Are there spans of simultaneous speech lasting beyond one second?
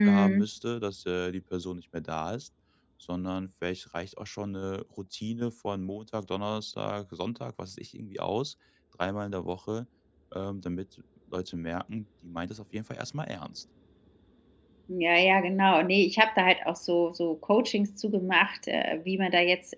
No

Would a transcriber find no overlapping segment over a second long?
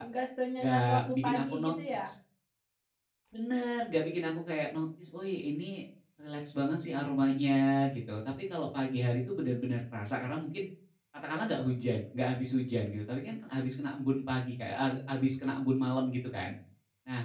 No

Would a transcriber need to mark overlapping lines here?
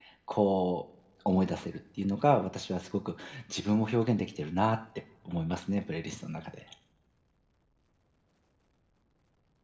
No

